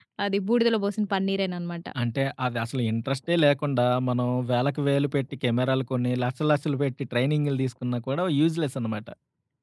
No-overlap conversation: Yes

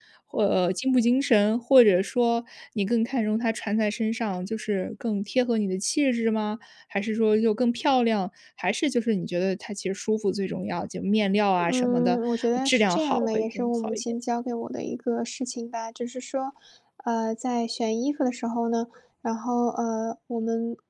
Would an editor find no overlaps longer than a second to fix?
No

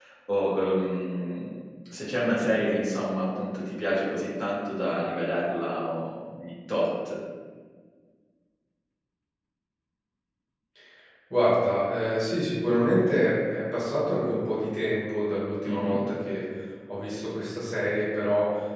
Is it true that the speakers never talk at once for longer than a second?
Yes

